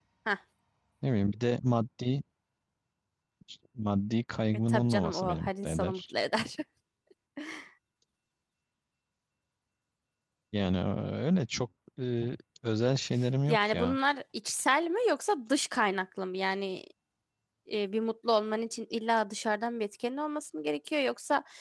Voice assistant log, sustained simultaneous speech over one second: present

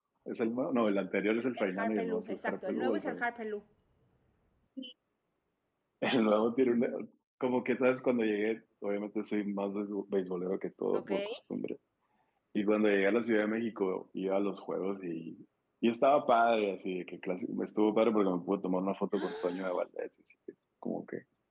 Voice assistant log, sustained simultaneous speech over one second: present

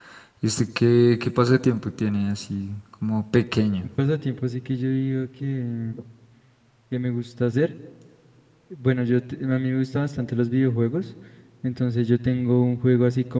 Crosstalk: none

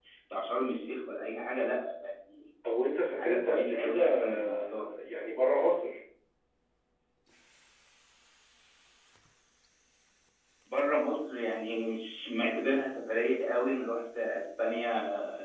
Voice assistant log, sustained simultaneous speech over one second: present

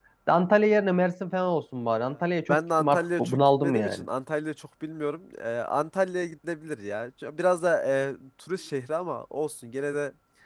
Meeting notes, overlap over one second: present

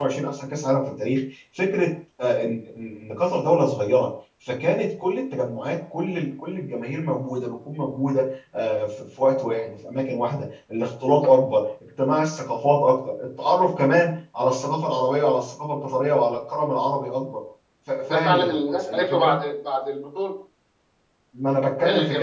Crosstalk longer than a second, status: present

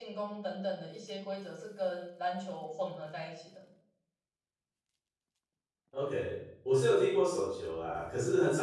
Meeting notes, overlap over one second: none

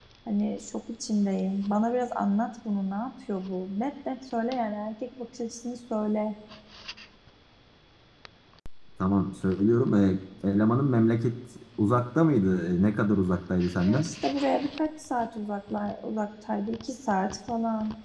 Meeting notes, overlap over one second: none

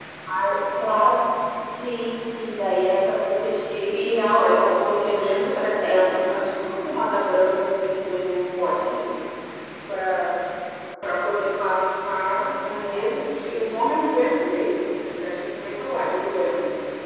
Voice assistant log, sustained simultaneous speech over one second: present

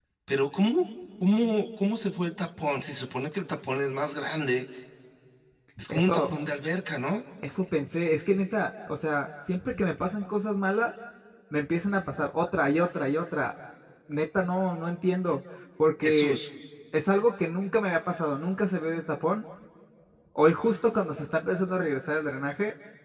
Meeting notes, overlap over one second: none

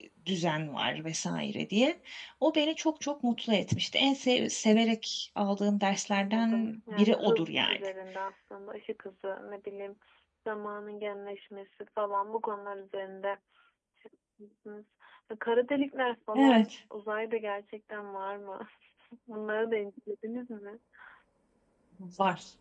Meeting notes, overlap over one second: present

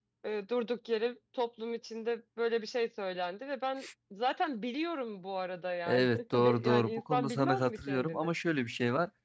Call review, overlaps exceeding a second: present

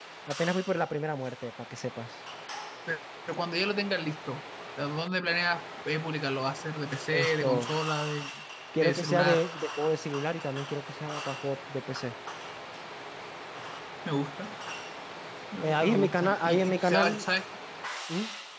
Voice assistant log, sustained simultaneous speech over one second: present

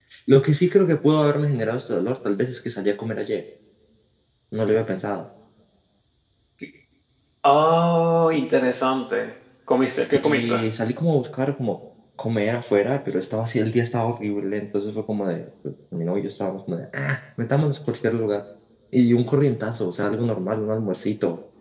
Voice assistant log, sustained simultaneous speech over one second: none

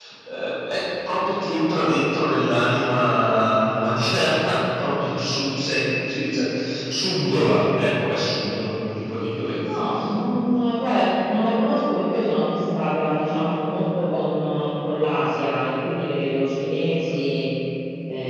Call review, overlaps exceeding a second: none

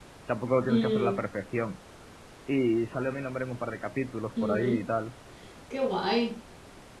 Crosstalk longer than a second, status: none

